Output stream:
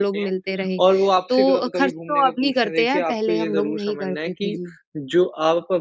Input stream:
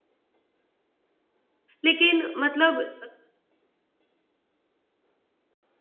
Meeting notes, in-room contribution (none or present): present